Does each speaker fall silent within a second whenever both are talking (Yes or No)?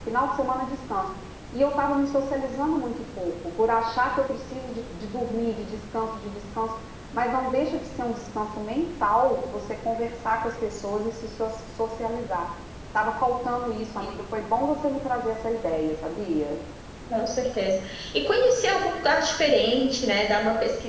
Yes